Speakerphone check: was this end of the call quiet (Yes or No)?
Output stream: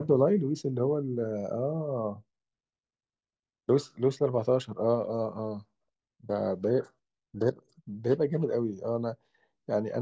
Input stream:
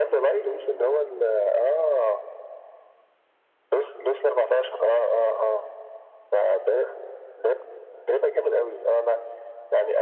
Yes